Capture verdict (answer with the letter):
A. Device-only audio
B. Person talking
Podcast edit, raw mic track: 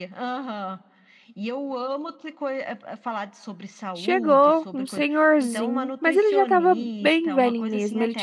B